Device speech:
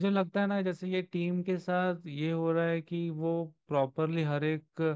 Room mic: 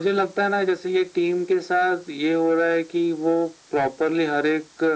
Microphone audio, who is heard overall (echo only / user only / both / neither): echo only